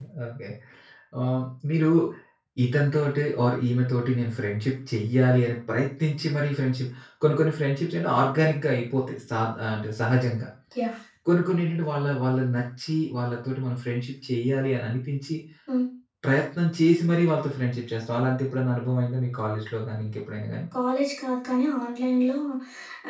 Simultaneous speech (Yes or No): No